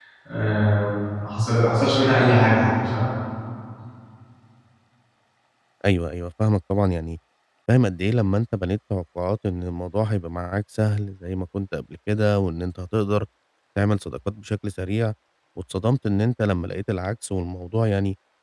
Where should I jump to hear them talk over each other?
none

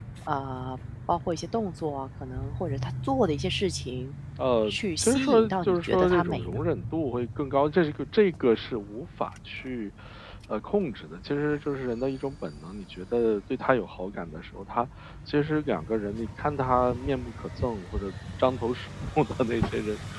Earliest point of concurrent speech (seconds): 4.6 s

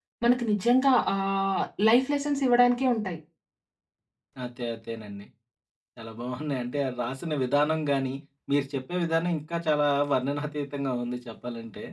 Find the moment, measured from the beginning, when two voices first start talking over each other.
none

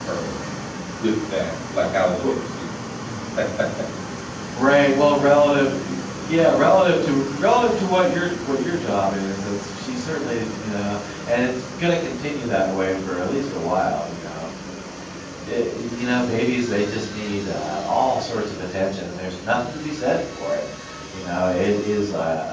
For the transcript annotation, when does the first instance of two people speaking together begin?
none

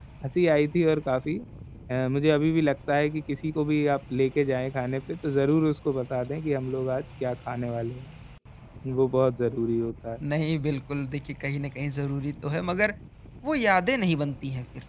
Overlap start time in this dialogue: none

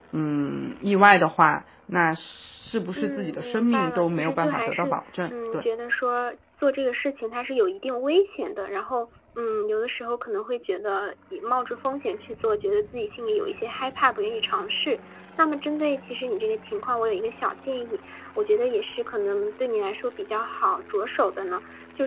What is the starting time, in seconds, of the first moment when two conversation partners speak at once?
3.0 s

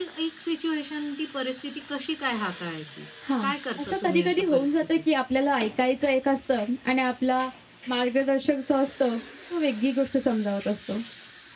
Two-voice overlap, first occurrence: 3.2 s

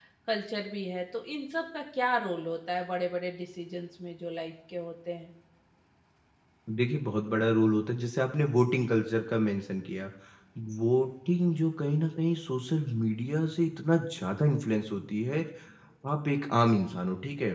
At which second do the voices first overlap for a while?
none

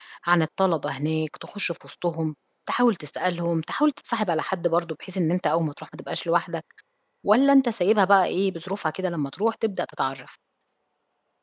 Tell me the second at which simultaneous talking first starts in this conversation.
none

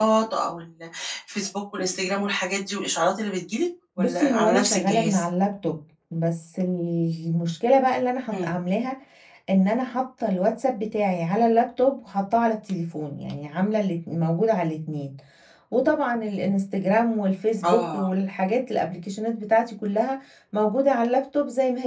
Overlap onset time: 4.0 s

